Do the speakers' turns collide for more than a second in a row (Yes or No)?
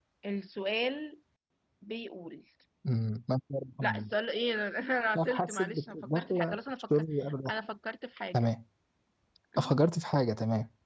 Yes